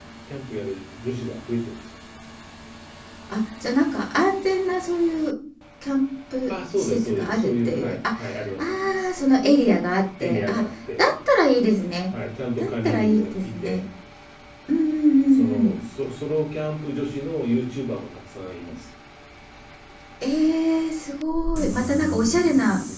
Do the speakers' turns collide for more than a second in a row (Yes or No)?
Yes